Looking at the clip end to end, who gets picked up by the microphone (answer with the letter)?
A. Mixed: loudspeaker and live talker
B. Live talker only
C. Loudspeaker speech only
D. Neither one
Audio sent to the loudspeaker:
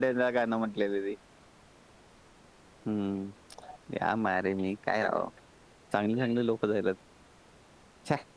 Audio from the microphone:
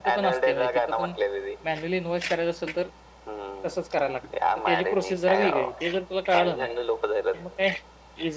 A